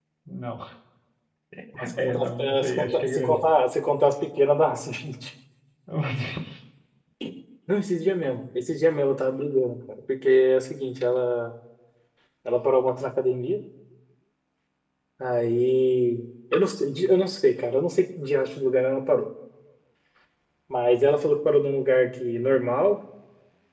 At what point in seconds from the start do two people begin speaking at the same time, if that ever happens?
2.0 s

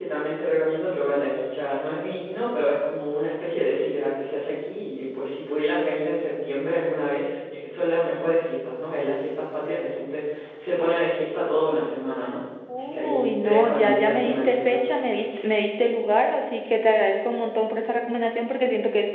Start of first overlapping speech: 12.7 s

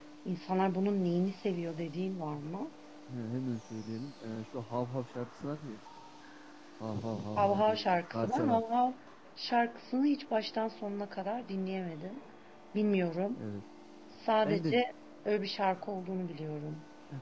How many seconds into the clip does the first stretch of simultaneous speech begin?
7.4 s

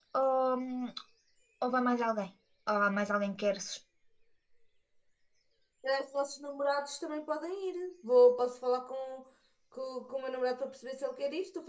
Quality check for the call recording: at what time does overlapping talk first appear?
none

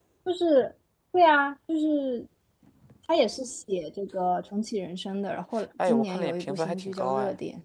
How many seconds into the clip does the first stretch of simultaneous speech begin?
5.8 s

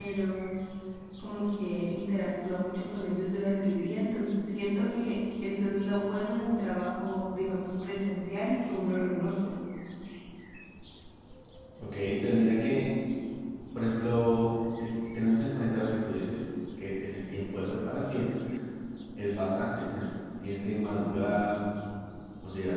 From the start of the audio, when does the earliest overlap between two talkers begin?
none

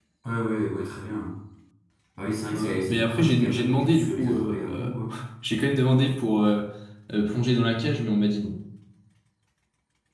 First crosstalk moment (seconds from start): 2.5 s

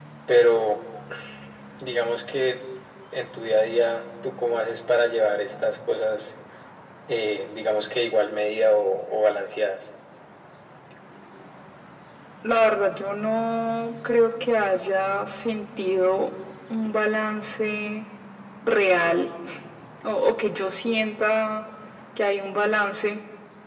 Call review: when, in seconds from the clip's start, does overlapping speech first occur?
none

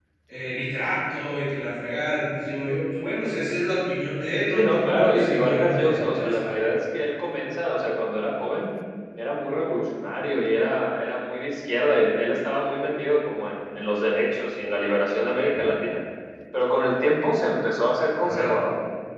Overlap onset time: 4.5 s

